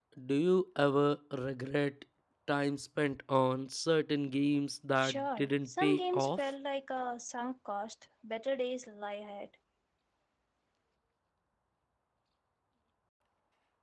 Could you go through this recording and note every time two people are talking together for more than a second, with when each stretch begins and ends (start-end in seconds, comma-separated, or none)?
5.0-6.5